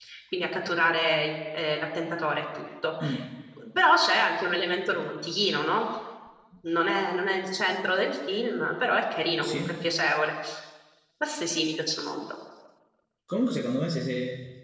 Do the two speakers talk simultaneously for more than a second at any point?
No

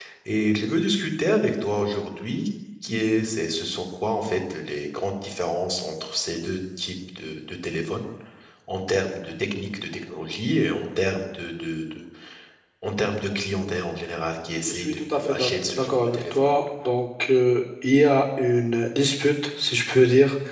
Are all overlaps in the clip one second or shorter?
No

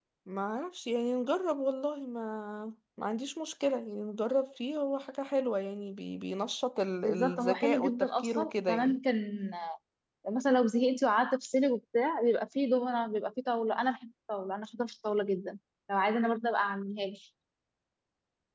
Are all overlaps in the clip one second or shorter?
No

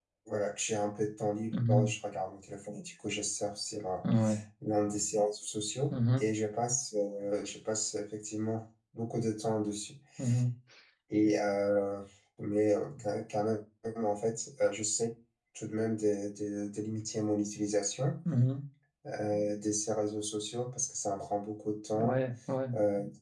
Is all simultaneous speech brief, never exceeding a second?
Yes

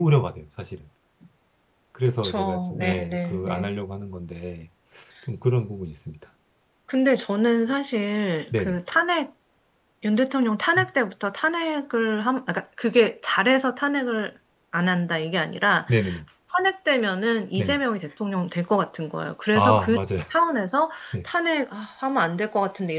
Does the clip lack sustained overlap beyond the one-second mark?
No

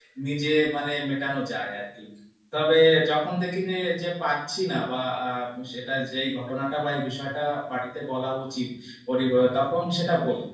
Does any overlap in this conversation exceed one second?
No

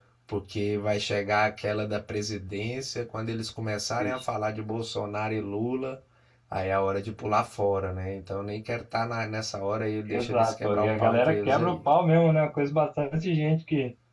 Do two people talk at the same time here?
Yes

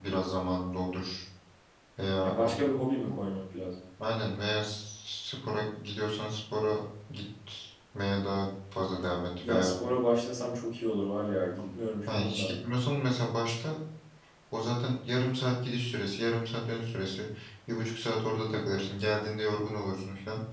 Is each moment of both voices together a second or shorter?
Yes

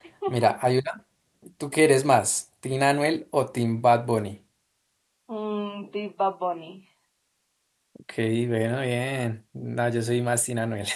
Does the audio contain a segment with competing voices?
No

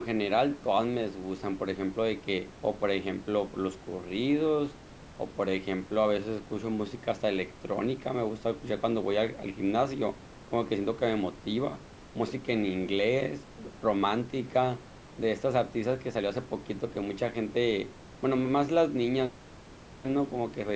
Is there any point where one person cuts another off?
No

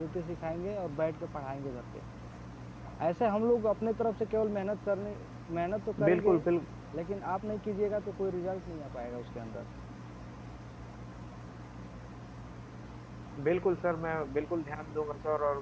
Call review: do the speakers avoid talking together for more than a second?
Yes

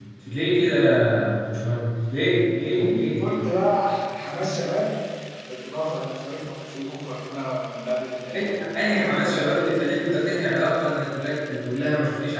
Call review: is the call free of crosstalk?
No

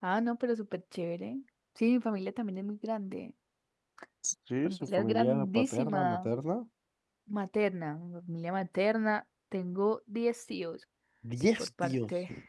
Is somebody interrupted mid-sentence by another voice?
Yes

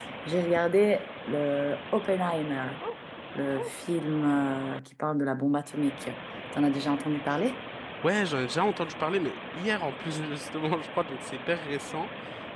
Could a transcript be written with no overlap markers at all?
Yes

